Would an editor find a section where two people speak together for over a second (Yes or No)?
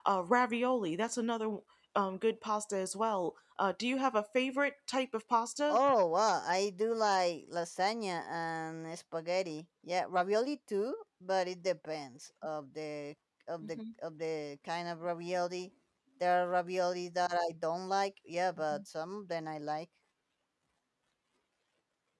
No